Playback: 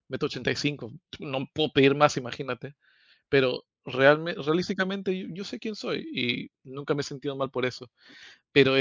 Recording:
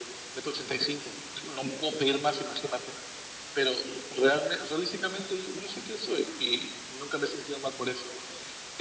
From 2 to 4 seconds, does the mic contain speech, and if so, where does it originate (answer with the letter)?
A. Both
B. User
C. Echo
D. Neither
C